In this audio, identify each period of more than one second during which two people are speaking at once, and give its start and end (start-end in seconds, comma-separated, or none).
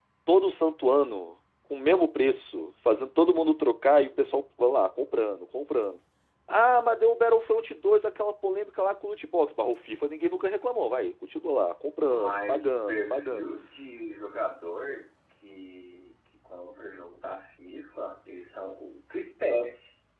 12.0-13.5